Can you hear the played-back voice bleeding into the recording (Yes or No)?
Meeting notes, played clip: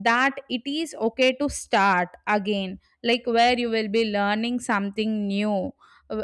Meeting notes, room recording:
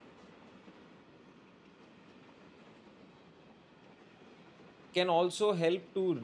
No